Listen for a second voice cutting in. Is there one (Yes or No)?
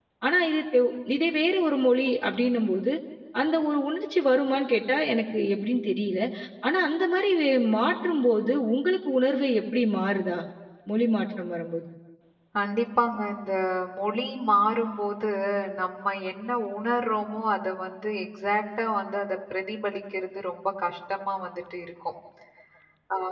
No